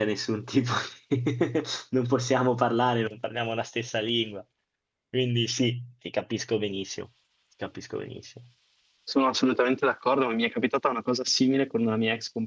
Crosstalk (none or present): none